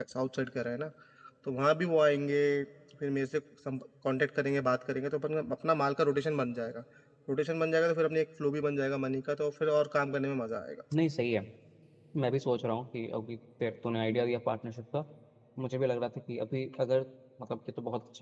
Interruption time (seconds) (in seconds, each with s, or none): none